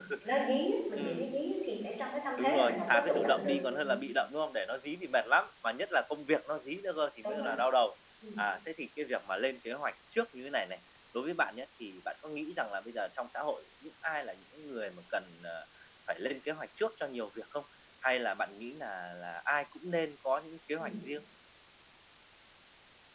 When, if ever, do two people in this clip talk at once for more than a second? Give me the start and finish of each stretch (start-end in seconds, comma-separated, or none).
2.4-4.0